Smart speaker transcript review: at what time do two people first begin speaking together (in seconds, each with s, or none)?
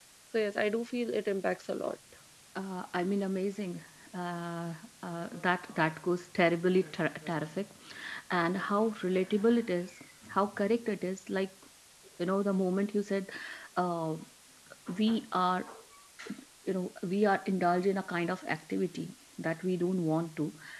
none